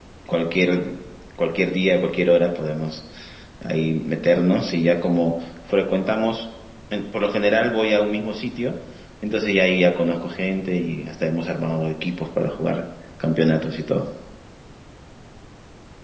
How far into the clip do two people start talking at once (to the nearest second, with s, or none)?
none